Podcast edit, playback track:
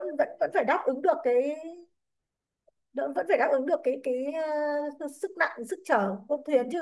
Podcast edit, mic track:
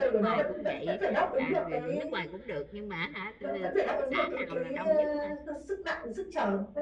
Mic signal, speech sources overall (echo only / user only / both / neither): both